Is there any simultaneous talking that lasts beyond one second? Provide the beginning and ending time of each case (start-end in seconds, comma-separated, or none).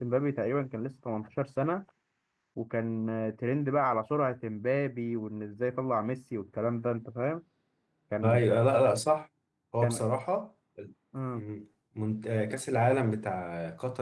none